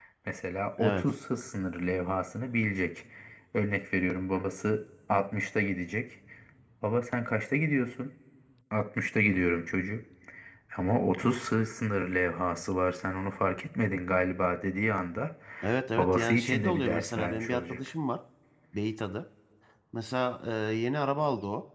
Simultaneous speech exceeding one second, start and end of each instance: 16.0-17.8

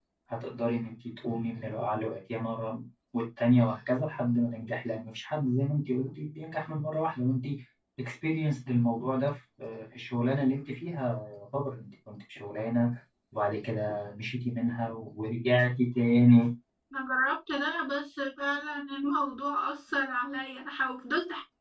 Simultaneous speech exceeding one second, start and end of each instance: none

